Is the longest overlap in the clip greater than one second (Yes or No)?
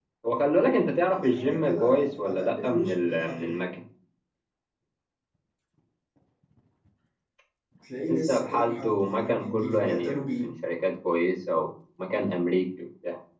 Yes